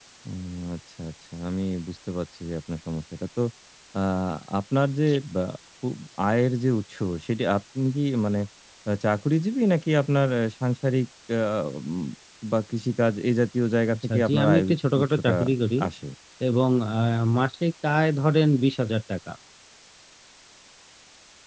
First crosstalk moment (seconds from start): 13.9 s

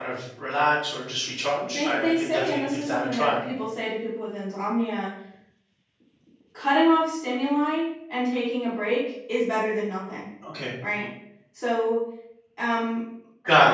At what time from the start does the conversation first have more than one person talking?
1.6 s

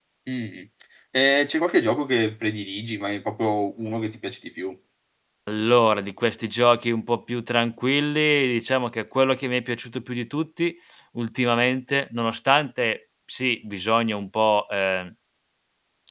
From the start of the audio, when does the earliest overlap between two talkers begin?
none

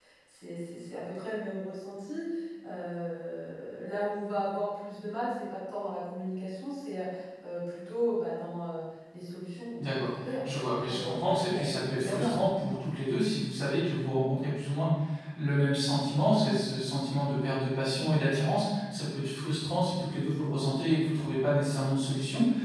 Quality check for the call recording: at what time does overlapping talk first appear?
9.8 s

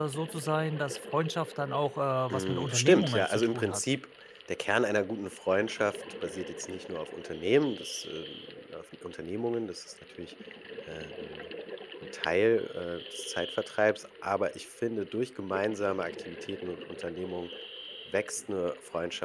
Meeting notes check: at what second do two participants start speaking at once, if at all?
2.3 s

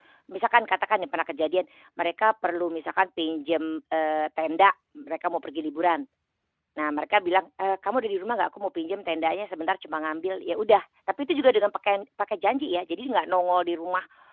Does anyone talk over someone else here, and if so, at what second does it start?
none

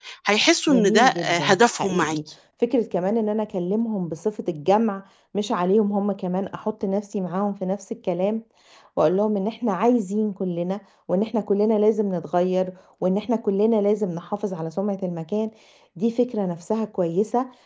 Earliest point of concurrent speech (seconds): 0.7 s

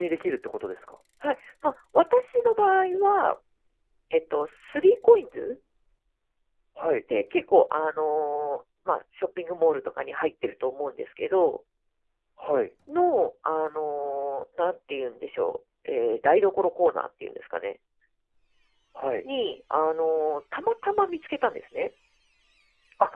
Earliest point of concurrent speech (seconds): none

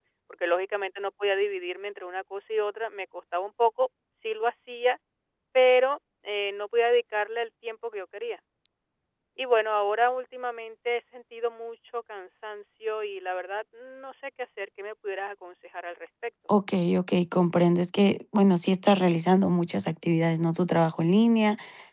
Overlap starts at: none

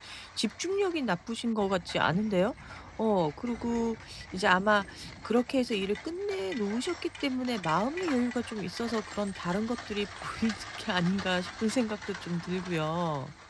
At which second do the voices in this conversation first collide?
none

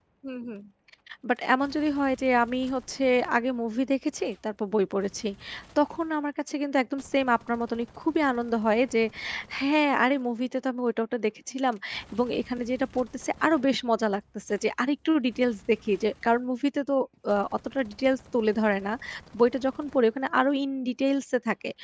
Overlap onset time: none

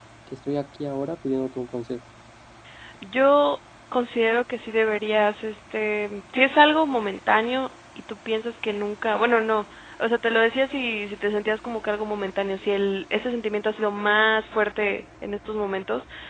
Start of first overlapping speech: none

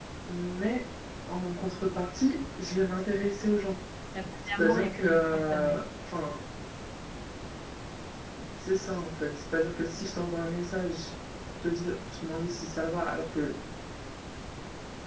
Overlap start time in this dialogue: 4.6 s

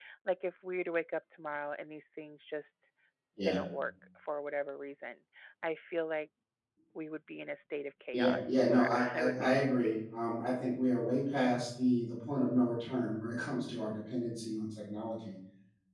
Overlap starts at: 8.1 s

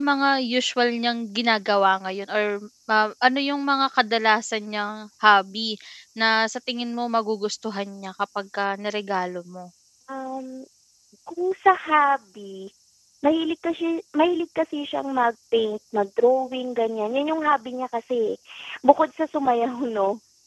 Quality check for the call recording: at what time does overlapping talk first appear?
none

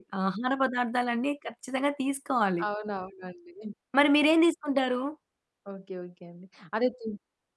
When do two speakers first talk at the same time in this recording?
none

